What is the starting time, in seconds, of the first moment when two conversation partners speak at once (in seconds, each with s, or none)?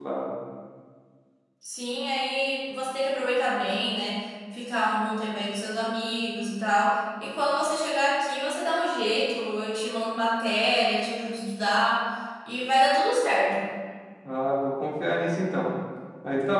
none